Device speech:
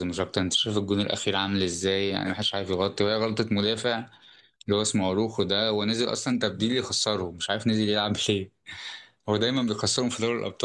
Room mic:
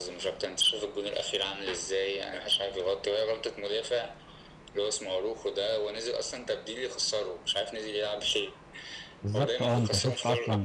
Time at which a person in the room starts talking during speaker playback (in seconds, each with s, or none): 9.2 s